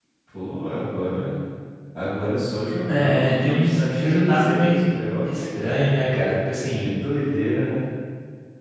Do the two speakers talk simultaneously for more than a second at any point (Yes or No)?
Yes